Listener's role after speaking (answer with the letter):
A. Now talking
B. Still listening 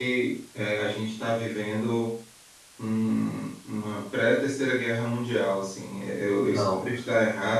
B